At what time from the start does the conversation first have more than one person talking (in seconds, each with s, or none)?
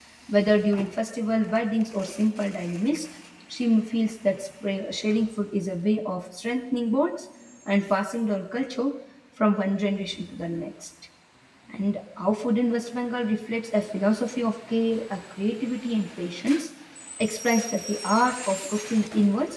none